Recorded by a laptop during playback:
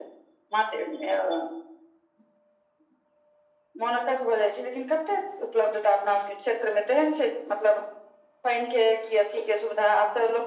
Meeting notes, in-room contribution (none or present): none